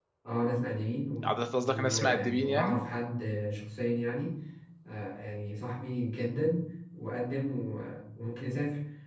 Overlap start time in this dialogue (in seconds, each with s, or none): 1.2 s